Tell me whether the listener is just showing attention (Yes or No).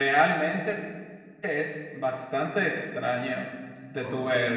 Yes